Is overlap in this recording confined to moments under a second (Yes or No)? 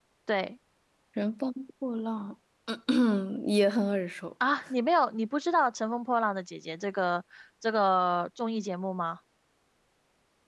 Yes